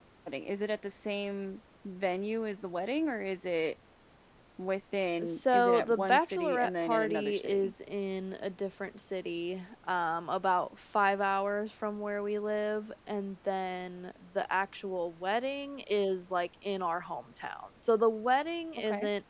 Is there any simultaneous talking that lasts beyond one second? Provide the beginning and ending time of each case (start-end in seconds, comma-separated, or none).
5.2-7.7